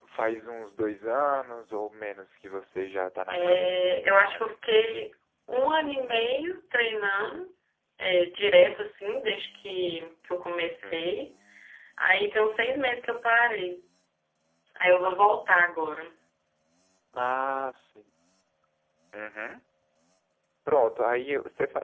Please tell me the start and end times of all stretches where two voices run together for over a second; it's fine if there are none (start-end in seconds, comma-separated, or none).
3.3-4.5